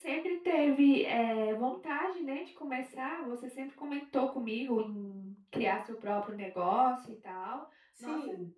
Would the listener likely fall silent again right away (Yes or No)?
No